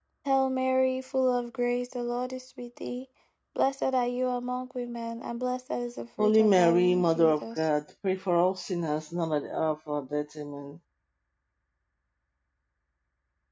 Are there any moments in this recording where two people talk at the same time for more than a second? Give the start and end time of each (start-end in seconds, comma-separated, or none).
6.2-7.7